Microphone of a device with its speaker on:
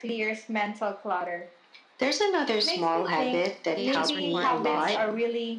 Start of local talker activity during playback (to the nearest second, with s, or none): 4 s